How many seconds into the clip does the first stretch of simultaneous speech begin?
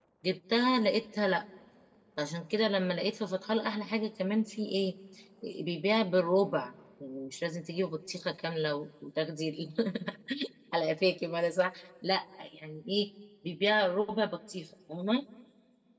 none

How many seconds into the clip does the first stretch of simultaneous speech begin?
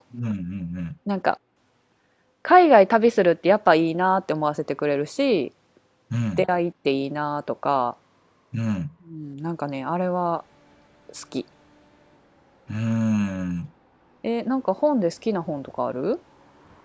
none

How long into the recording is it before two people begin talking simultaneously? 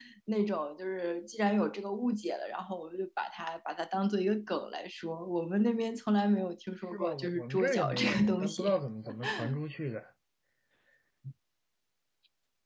6.9 s

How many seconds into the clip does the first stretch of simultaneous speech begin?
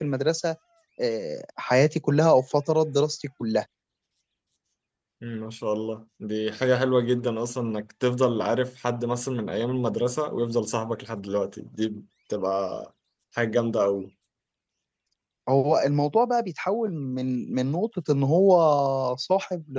none

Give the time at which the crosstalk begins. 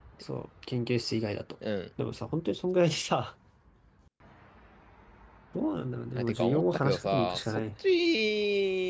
6.2 s

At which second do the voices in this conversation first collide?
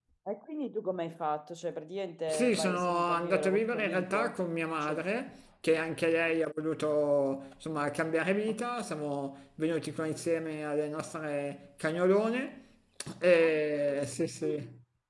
2.3 s

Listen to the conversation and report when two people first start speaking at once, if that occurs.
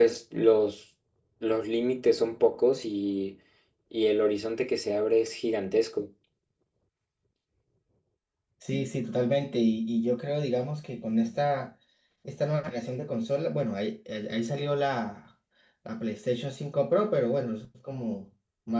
none

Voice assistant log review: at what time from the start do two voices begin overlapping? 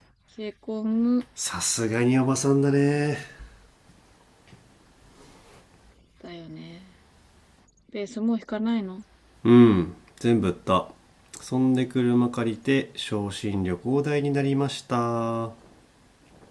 none

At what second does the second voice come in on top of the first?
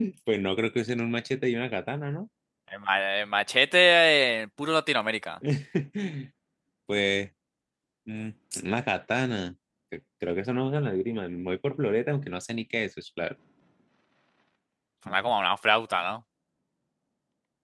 none

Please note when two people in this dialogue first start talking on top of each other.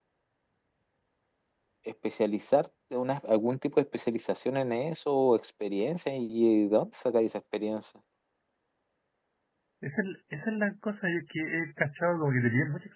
none

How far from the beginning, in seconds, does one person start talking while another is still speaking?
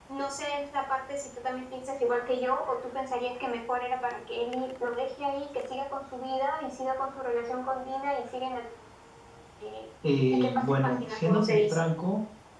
10.3 s

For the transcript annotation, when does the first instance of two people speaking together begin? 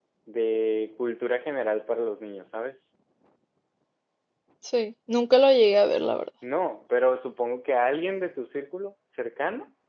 none

